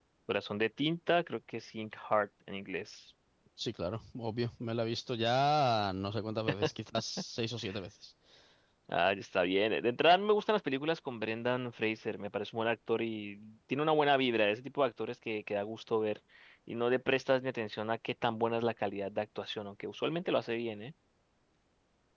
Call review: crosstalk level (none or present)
none